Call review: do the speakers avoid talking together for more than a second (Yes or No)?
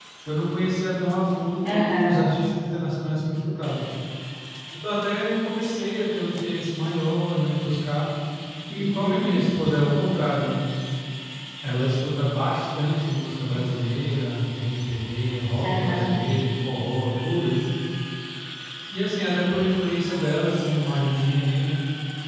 Yes